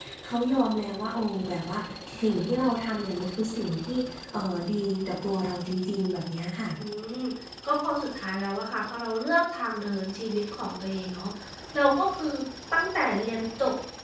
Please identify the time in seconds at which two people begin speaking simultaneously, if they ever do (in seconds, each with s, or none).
none